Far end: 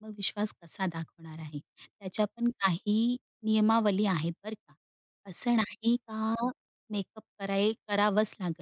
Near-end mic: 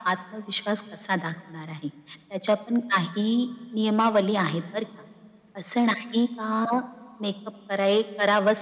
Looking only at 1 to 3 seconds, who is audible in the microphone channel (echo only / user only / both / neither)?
echo only